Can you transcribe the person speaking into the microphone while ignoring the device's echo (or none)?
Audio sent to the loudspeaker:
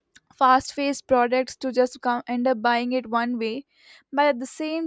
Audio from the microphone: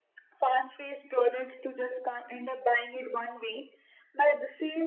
none